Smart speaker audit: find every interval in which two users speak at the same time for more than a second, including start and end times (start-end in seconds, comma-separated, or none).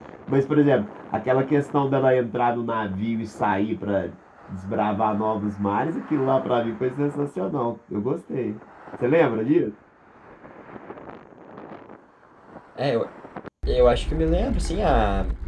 none